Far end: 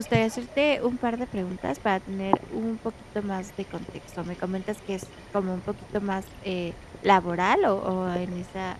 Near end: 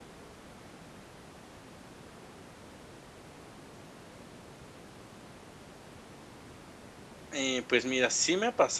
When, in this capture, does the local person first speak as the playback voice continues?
7.3 s

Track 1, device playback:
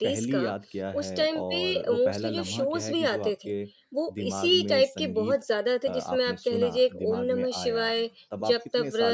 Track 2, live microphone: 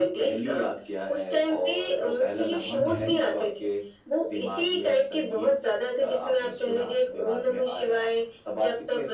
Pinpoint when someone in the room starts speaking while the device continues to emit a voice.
2.8 s

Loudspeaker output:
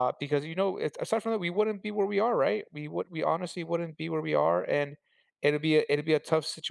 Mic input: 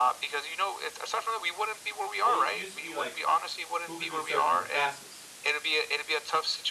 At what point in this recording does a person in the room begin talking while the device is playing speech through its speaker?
2.2 s

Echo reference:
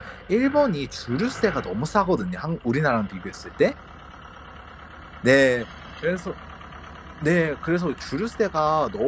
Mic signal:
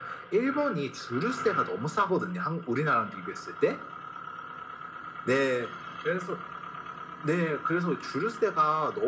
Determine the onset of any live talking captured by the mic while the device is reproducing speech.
none

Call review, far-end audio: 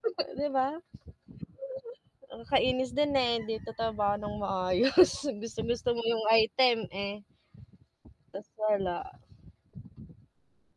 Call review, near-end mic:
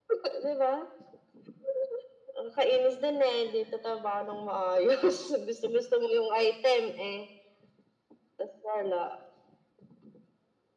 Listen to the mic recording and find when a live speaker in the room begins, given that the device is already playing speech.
none

